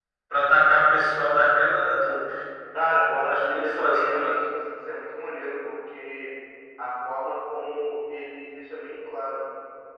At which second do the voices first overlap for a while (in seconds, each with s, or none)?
3.1 s